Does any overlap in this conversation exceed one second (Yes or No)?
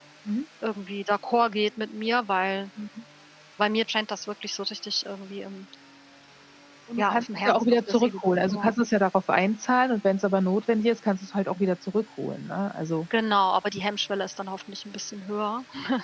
Yes